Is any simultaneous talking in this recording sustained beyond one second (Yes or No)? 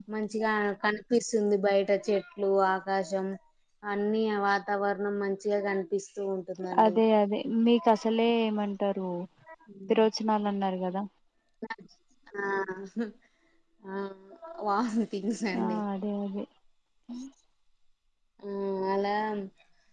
No